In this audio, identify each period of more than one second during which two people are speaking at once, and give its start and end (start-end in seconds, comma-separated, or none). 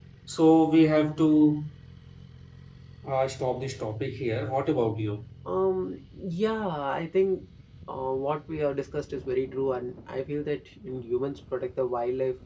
none